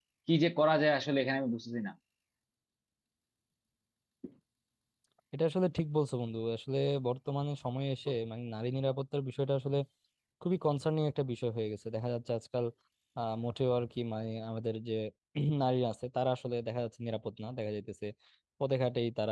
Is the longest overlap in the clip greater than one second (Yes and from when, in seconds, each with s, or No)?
No